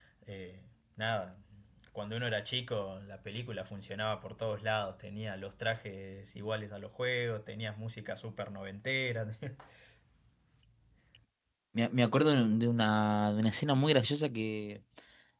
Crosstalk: none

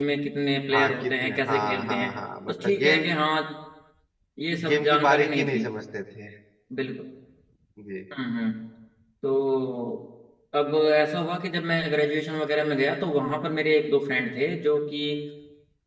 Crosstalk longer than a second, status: present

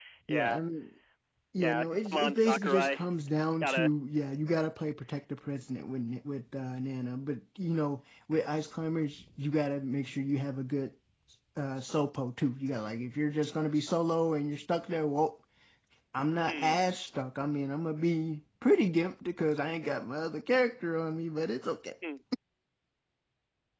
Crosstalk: present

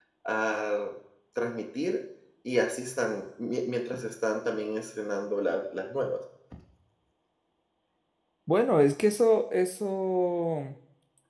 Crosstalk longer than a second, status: none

